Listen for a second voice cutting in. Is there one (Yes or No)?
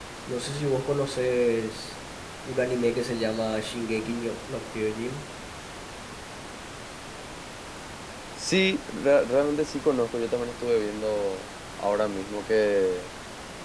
No